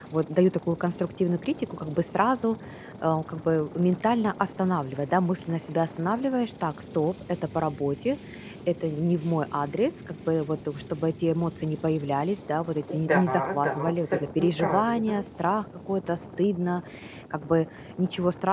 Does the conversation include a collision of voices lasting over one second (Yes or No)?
Yes